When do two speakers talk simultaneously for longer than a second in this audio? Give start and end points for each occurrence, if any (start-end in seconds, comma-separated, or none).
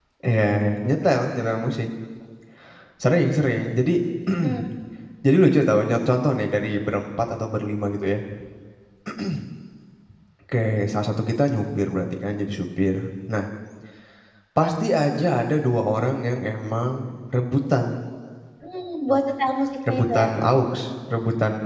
none